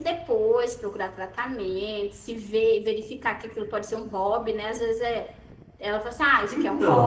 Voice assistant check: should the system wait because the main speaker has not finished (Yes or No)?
Yes